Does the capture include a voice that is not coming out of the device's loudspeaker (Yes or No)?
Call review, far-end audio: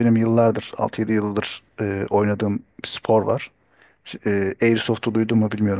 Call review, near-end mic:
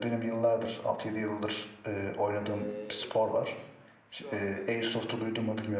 Yes